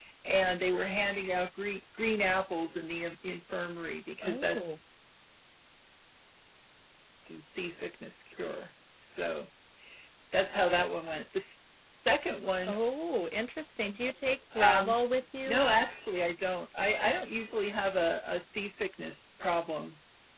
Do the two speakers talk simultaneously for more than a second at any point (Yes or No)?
No